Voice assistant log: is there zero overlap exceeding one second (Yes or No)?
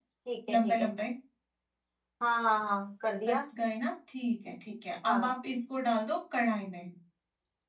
Yes